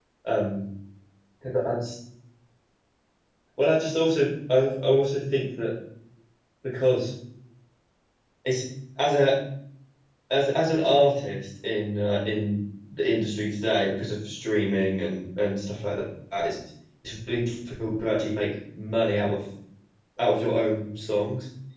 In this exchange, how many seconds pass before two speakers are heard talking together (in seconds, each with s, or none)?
none